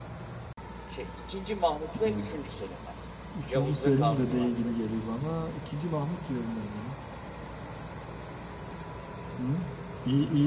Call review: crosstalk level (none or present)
present